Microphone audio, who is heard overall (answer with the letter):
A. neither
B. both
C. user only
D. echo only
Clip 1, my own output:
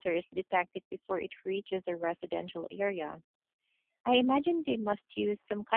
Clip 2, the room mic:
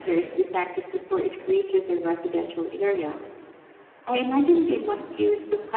D